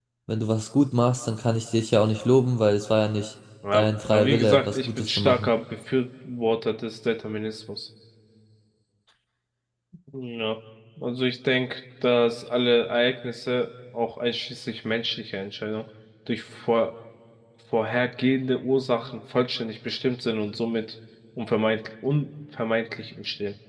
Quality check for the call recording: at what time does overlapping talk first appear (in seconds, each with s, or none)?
3.6 s